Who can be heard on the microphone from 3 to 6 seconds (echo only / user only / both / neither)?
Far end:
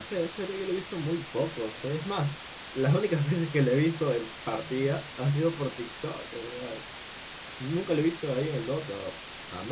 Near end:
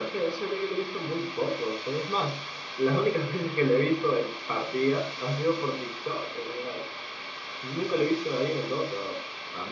echo only